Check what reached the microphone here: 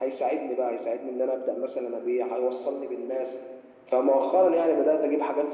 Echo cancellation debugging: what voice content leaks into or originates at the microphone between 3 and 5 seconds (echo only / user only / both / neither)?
echo only